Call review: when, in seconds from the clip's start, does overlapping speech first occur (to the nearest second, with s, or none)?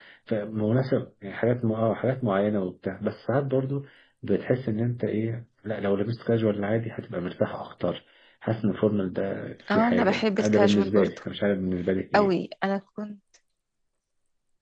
10 s